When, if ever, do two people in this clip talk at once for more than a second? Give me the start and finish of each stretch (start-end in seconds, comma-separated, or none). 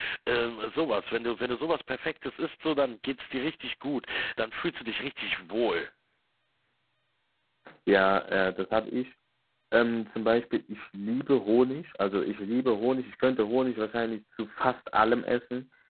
none